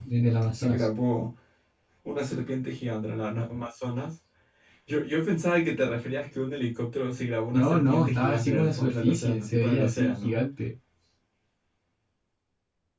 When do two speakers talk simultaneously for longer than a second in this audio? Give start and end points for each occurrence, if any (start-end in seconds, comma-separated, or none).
7.5-10.4